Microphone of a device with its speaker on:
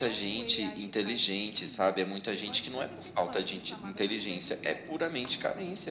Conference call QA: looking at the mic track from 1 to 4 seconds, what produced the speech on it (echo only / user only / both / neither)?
both